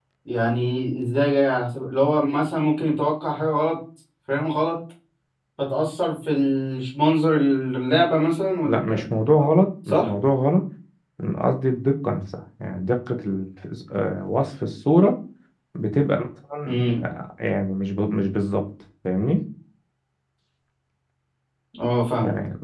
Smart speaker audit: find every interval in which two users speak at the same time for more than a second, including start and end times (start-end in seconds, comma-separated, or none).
none